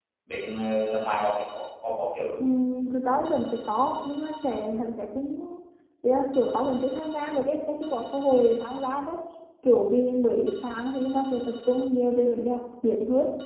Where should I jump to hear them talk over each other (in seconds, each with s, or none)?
none